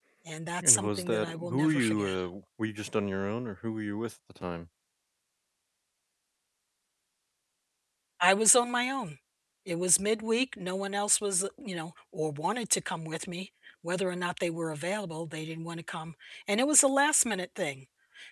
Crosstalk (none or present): present